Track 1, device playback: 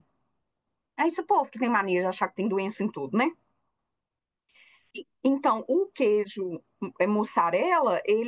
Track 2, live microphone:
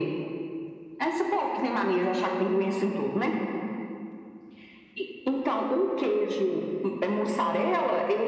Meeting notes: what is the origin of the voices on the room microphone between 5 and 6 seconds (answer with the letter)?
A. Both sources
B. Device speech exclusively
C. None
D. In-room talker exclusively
B